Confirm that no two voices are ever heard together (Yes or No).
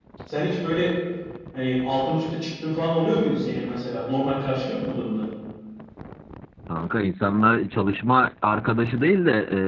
Yes